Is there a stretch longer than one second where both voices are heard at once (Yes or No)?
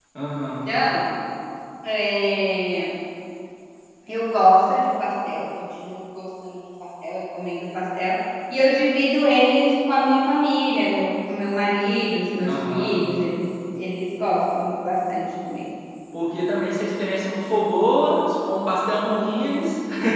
No